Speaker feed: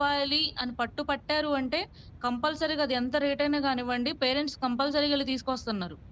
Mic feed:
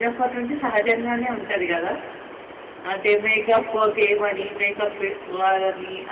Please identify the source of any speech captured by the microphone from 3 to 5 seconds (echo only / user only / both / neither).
user only